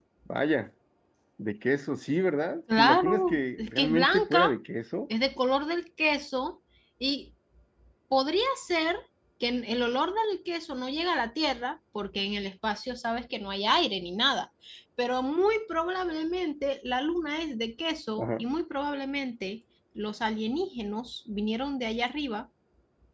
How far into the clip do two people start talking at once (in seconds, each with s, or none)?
2.7 s